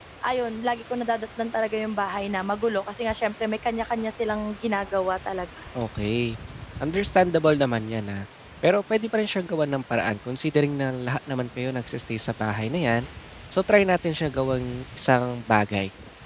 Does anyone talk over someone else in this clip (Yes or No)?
No